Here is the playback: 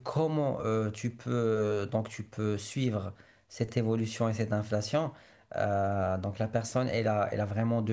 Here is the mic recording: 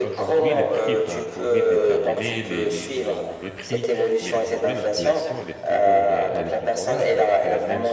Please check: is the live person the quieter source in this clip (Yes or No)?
Yes